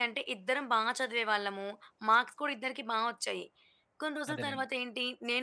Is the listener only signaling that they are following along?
Yes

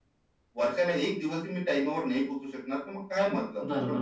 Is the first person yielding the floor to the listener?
Yes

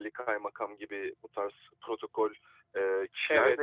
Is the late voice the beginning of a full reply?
Yes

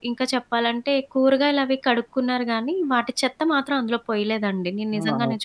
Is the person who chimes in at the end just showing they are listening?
No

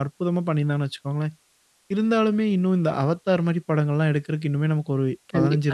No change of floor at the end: No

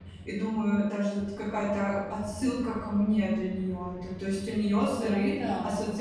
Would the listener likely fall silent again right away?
Yes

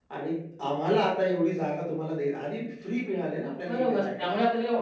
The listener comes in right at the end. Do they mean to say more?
Yes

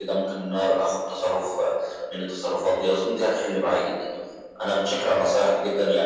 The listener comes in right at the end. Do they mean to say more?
No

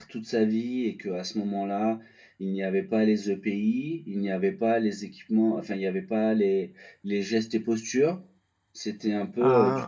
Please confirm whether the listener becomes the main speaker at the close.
No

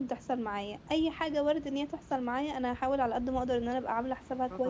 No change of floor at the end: Yes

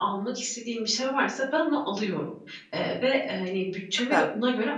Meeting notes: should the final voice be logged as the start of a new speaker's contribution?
No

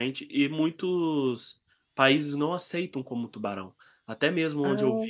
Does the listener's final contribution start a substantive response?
No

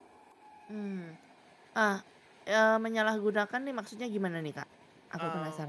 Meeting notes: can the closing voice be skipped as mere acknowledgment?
No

